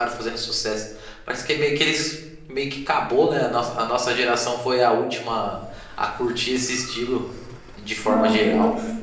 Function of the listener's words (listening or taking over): taking over